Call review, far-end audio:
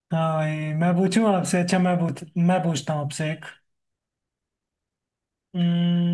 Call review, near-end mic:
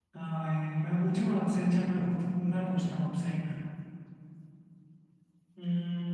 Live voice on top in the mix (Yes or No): No